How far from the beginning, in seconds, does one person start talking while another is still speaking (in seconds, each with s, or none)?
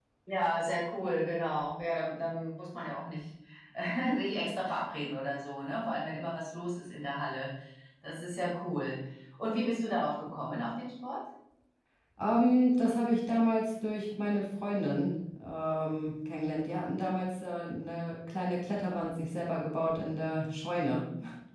none